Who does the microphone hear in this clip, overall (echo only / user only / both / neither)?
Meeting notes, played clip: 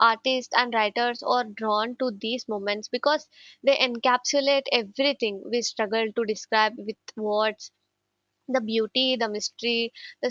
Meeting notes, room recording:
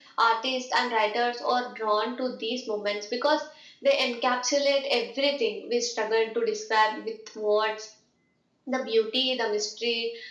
echo only